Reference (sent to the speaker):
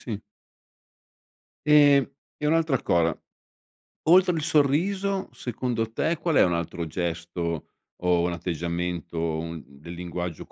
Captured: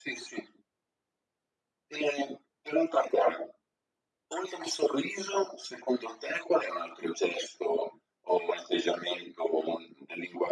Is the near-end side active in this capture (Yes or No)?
No